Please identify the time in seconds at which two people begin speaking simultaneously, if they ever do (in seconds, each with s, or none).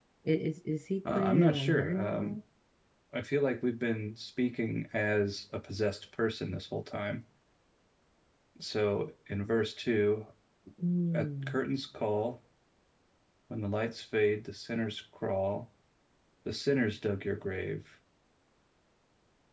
1.1 s